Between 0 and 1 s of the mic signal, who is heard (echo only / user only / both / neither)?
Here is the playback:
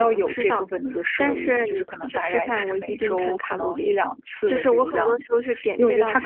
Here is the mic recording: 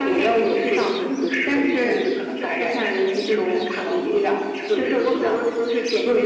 echo only